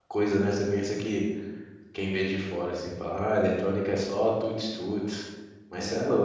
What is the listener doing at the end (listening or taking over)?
listening